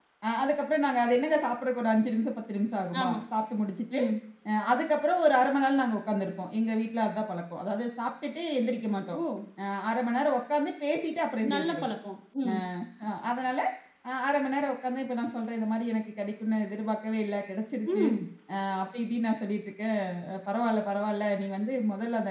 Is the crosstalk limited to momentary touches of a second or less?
Yes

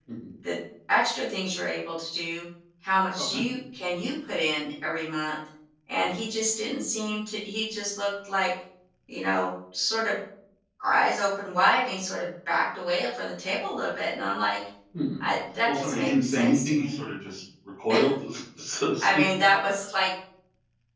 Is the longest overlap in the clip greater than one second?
Yes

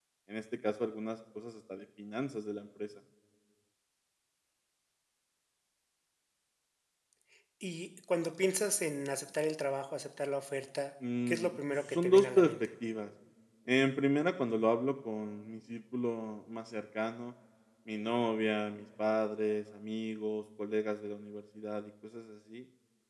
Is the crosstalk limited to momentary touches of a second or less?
No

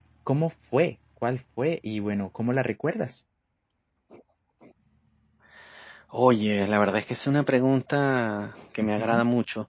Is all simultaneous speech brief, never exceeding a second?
Yes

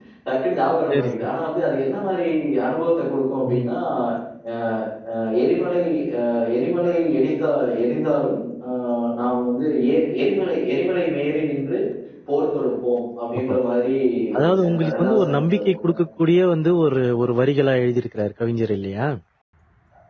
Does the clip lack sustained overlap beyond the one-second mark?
No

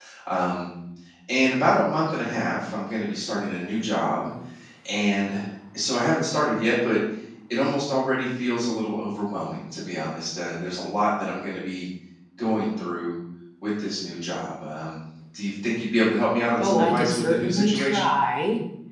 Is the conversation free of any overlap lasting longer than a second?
No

